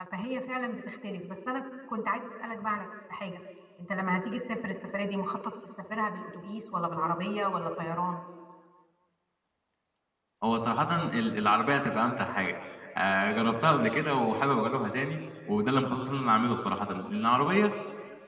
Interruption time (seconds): none

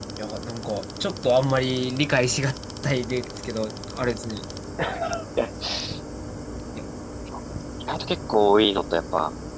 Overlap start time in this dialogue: none

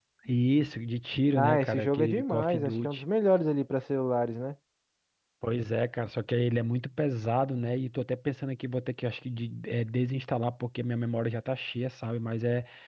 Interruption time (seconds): 1.4 s

